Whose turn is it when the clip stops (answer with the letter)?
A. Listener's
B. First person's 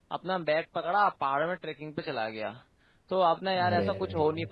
B